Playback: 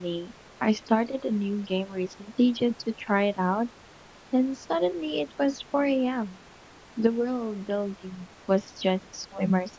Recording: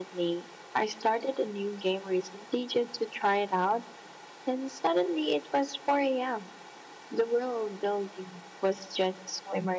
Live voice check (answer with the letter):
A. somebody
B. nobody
B